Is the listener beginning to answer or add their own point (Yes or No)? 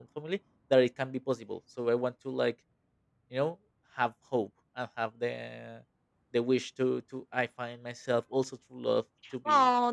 Yes